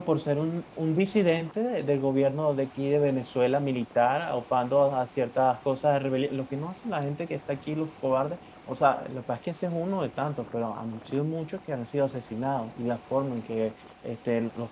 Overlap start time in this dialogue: none

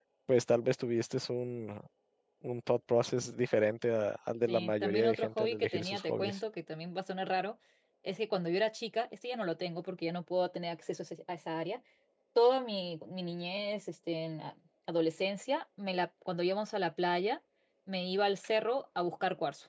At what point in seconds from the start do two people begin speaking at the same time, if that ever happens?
4.5 s

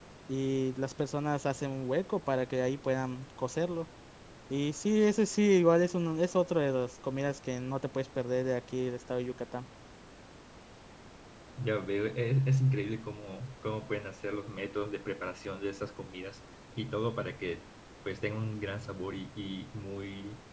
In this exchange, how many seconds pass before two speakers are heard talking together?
none

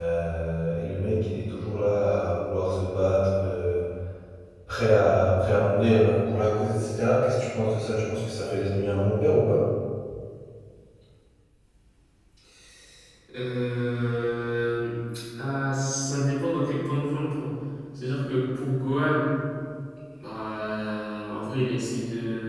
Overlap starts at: none

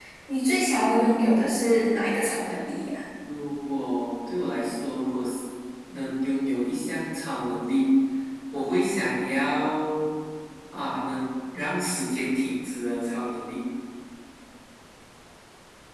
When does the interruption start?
none

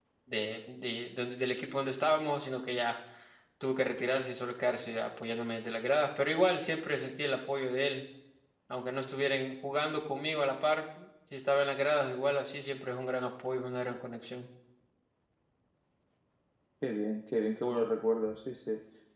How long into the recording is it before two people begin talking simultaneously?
none

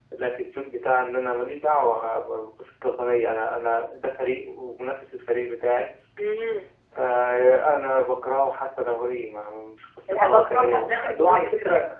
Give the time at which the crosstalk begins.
10.1 s

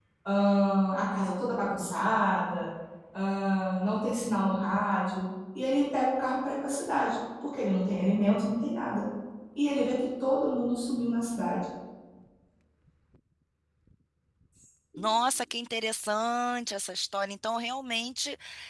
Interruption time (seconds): none

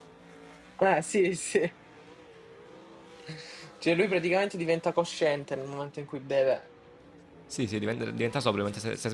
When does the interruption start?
none

